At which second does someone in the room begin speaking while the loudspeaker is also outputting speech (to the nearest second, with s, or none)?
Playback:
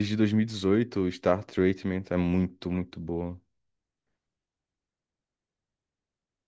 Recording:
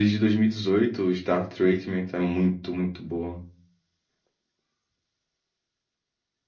none